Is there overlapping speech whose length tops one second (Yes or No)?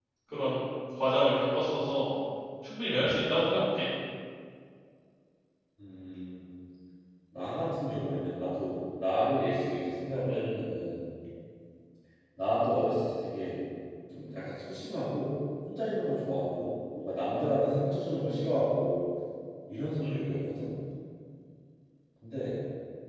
No